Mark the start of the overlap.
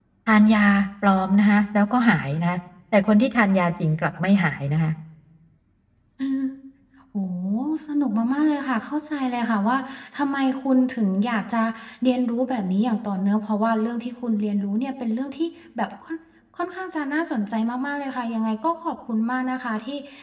none

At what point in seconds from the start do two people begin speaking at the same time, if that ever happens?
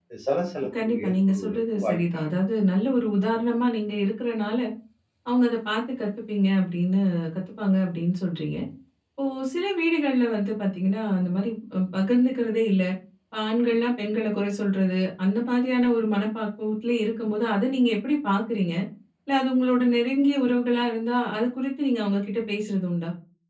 1 s

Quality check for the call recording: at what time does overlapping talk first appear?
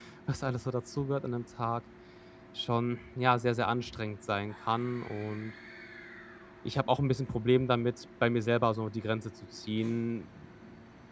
none

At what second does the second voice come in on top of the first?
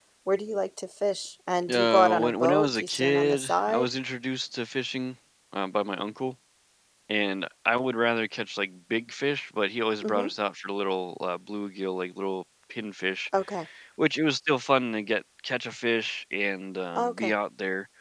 2 s

